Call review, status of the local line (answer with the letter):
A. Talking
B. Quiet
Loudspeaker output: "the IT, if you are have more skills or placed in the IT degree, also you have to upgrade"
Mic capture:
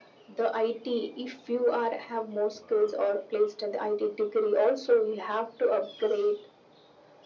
B